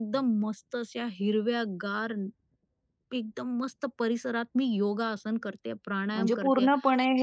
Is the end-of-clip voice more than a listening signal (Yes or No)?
Yes